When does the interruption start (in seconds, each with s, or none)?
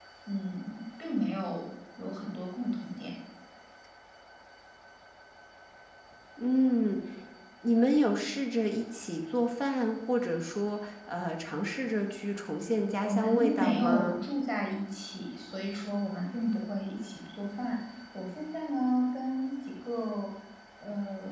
13.0 s